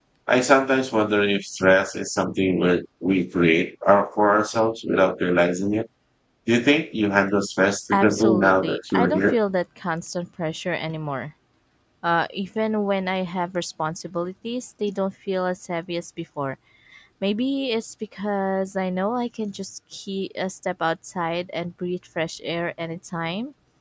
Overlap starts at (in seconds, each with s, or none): 7.9 s